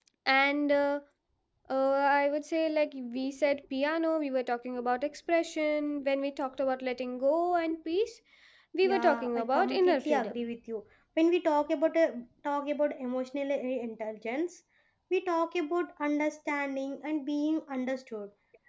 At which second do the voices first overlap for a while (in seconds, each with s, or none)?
8.8 s